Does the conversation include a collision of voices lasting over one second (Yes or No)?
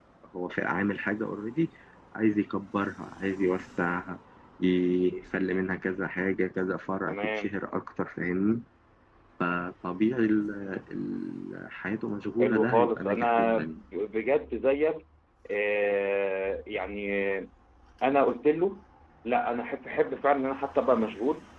Yes